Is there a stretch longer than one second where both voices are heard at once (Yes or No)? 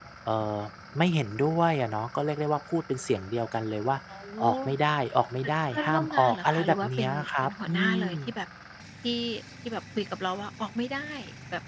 Yes